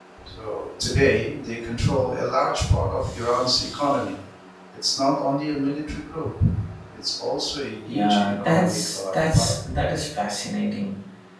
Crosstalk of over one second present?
Yes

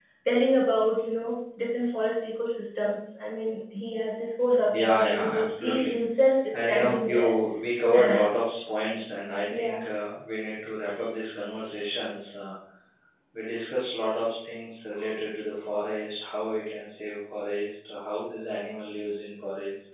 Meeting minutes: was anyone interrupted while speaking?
Yes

